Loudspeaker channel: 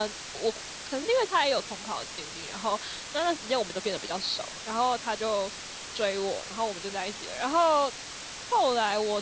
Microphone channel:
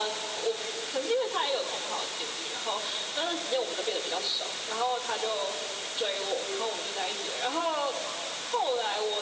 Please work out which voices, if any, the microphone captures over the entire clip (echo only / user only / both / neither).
echo only